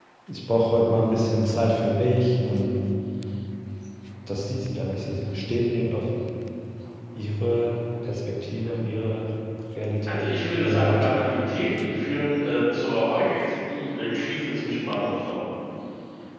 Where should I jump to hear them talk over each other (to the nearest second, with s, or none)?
10 s